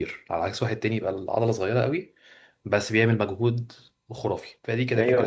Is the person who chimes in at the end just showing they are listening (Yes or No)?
No